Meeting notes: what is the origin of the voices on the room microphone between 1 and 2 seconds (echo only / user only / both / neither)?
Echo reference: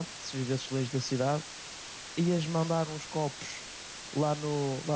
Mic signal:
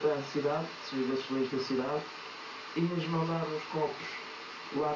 echo only